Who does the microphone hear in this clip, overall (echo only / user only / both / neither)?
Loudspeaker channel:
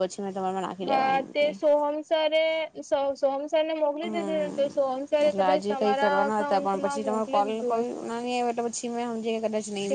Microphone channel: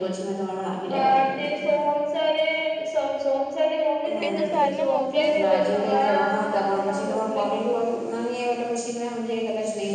both